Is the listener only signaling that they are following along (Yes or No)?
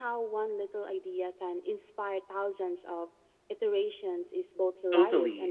No